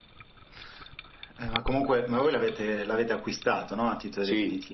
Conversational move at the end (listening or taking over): taking over